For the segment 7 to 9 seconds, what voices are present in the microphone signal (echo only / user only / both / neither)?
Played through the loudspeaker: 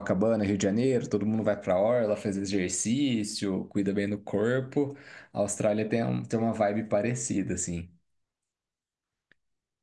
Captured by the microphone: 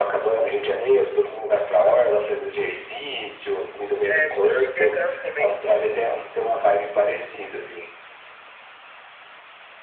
echo only